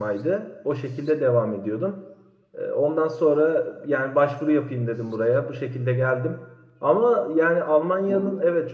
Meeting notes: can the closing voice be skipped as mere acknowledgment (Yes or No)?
Yes